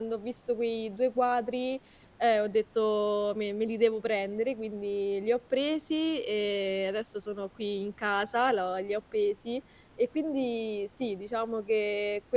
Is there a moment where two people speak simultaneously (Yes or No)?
No